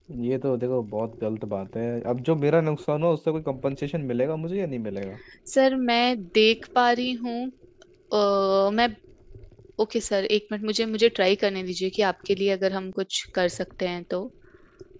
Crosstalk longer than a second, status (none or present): none